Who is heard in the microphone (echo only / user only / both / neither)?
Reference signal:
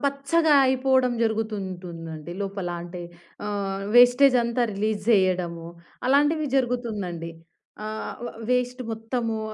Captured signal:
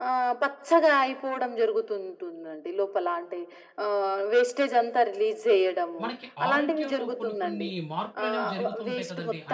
both